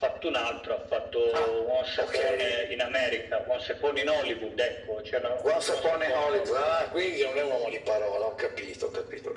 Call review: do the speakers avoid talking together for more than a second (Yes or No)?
No